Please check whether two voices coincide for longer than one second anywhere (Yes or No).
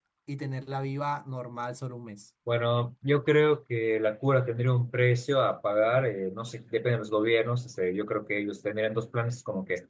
No